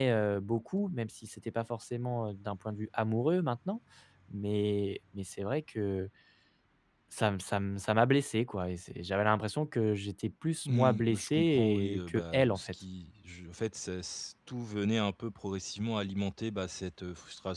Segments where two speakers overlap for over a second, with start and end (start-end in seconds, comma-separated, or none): 10.7-12.7